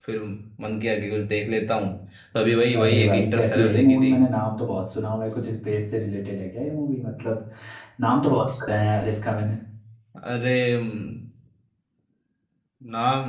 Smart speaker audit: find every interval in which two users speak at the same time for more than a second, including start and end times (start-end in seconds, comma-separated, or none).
2.8-4.1